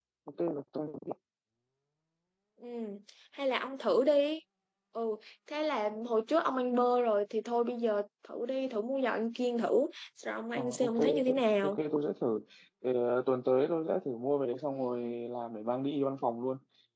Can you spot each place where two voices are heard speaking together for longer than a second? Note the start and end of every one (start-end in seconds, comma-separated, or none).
10.6-11.8